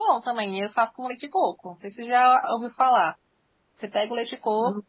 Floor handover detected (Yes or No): No